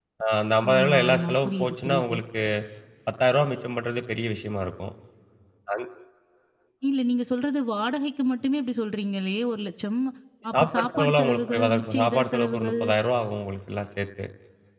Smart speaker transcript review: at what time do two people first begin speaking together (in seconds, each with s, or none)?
0.7 s